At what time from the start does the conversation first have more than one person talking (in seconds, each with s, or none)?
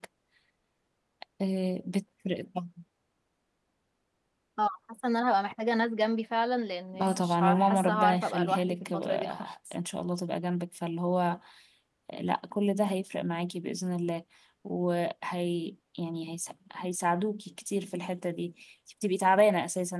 6.9 s